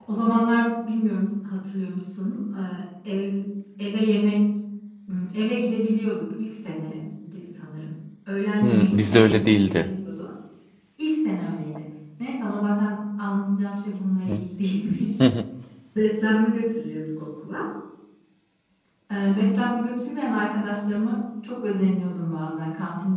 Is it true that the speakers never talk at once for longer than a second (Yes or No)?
No